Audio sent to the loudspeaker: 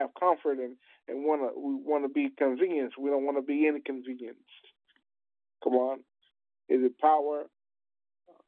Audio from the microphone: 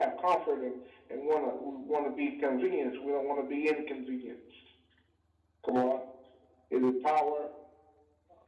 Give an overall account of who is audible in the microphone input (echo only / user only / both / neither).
echo only